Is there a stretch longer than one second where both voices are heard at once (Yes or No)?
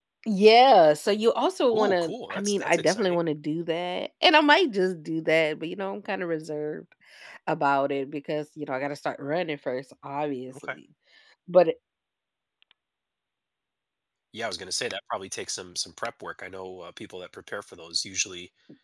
Yes